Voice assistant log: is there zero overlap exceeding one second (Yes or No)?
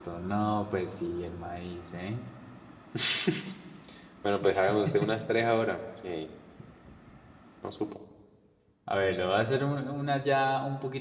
Yes